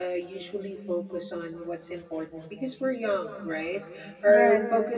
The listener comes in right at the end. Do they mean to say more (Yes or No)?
No